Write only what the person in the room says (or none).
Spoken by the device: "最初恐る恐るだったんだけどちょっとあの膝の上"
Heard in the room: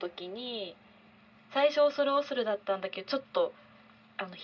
none